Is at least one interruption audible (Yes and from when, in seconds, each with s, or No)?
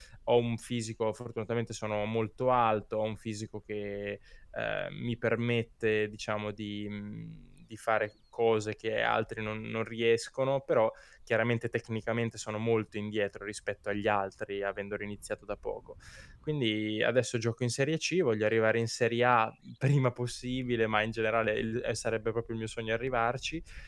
No